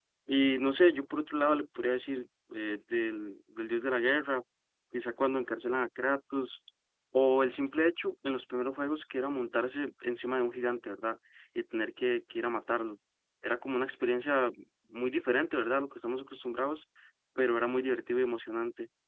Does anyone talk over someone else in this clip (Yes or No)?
No